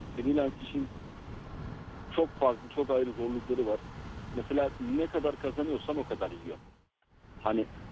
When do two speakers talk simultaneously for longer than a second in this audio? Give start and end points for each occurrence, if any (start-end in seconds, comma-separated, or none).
none